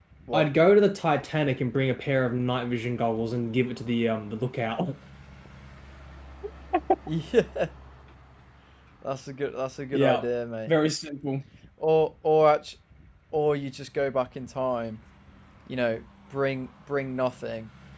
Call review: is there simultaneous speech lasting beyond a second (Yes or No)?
No